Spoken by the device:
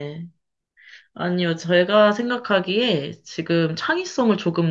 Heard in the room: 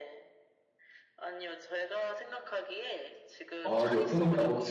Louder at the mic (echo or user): user